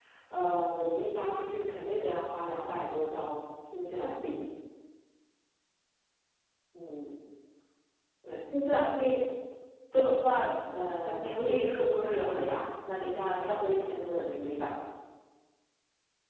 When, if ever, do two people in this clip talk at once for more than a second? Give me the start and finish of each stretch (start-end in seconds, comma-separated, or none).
11.0-12.6